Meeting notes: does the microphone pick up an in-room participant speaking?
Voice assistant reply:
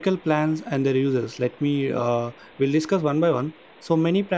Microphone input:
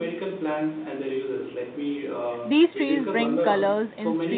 Yes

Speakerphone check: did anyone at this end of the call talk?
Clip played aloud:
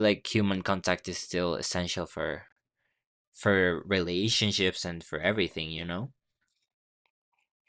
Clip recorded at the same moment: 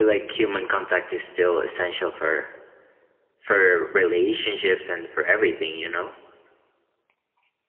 No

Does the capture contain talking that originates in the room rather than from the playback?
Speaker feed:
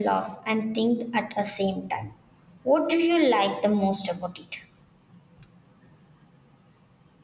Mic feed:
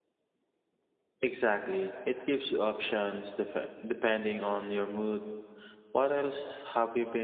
Yes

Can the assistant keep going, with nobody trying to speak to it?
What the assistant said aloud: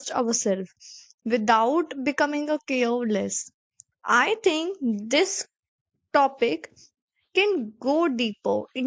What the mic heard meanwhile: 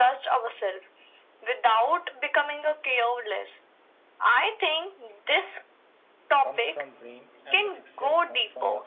No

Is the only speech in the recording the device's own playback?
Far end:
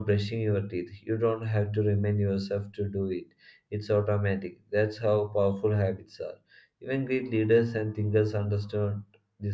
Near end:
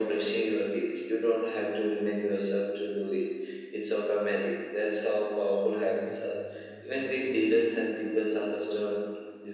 No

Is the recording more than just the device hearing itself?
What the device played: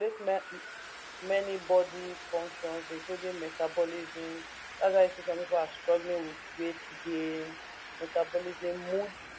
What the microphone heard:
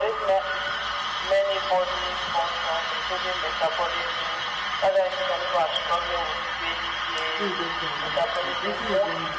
Yes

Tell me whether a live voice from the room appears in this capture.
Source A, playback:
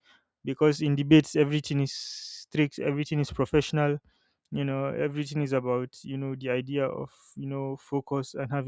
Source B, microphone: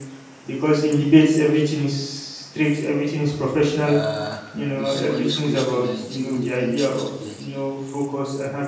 Yes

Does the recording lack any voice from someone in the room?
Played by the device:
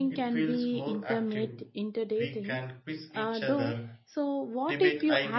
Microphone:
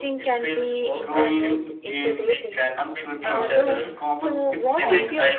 No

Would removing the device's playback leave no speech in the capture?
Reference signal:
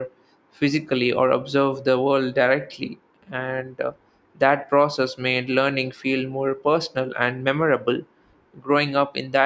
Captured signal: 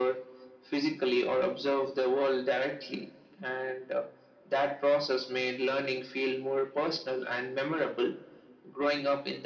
Yes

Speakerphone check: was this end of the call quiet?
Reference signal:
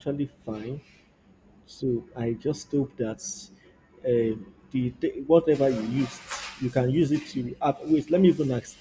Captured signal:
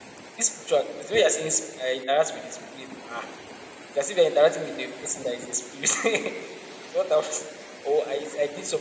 No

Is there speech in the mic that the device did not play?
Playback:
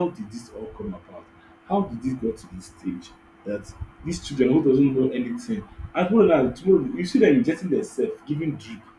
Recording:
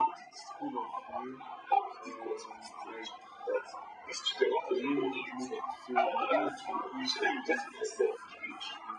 Yes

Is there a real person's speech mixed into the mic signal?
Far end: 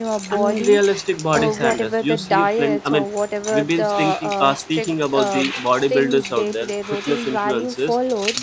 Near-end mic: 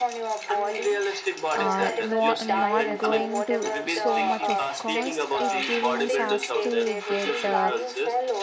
Yes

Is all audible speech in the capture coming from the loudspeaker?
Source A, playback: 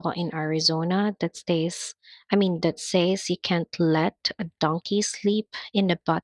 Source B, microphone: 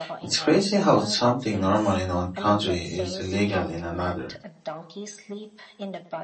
No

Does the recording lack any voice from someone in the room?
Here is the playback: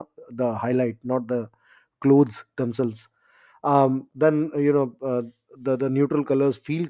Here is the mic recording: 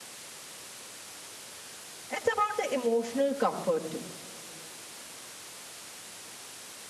No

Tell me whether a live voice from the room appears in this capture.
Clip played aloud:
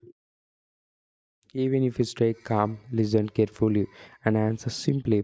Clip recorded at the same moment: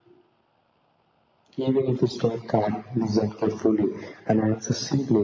No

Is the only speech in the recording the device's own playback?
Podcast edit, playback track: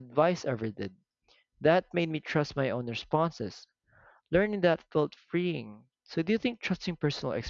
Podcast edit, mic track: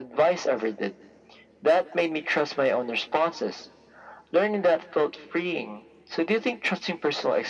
Yes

